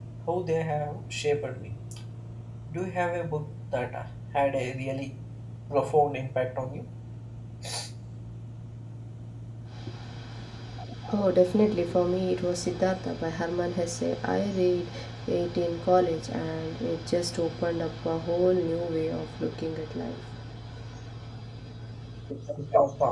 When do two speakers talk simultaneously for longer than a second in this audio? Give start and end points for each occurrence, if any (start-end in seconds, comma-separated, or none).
none